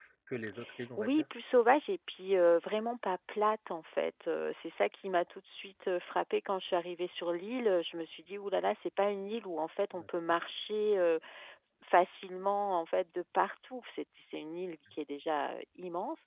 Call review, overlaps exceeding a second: none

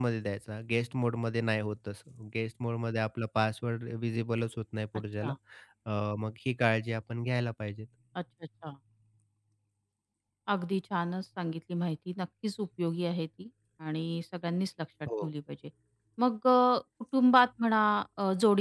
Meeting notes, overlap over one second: none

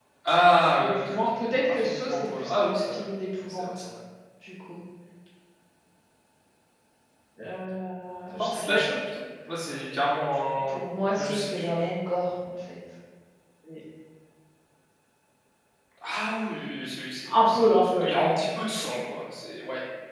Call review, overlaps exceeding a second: present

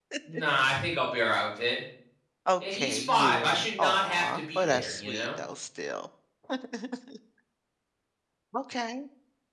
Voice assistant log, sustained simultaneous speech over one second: present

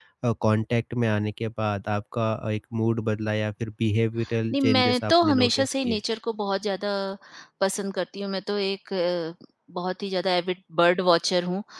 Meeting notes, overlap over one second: present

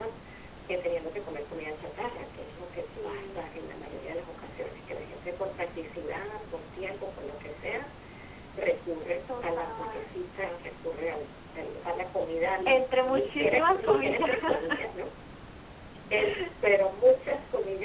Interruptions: present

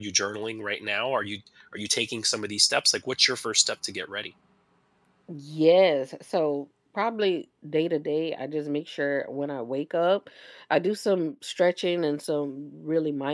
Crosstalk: none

